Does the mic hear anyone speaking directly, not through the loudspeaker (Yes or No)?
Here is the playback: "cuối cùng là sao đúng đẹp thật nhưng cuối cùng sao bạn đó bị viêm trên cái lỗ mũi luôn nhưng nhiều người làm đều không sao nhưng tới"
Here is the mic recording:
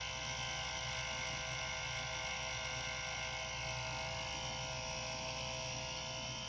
No